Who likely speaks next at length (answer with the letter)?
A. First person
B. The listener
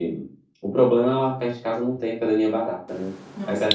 B